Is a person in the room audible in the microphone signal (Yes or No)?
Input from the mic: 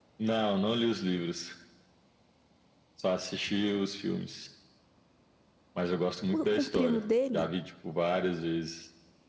Yes